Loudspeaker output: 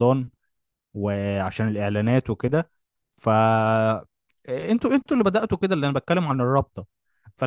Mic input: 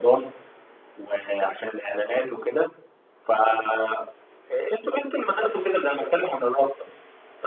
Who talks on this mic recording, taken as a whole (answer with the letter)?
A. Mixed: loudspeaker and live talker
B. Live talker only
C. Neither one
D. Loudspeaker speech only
D